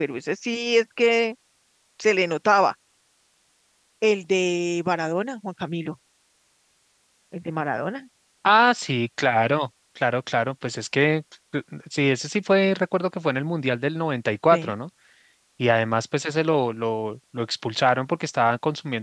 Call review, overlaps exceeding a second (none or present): none